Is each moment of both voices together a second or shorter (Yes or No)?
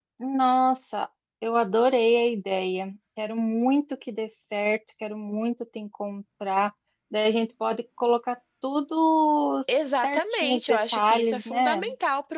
No